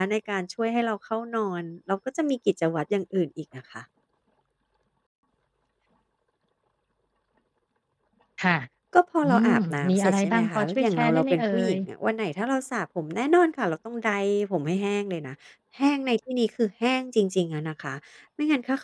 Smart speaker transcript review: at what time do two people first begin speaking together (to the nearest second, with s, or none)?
9 s